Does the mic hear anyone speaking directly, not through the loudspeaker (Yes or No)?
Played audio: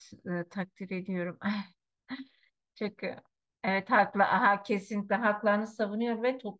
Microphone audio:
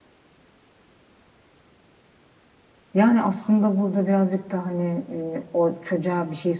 Yes